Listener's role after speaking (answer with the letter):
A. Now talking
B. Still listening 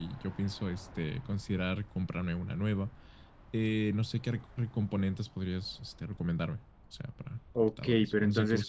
A